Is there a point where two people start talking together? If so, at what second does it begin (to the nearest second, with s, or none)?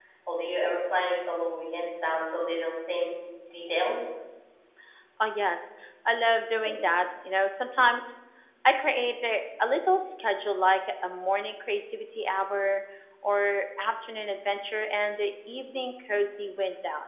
none